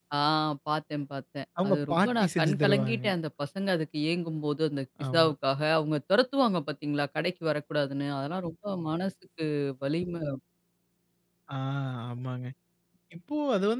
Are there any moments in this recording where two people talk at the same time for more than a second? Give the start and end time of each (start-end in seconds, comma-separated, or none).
1.6-3.0